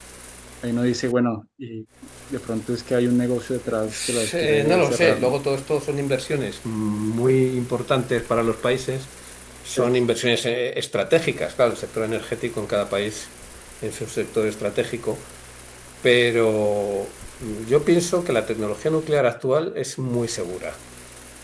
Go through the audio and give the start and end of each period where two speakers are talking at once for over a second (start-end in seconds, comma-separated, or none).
3.8-5.4